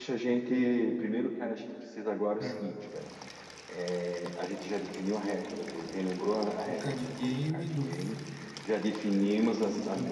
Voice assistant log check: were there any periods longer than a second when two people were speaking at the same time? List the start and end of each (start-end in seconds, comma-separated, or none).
6.7-7.9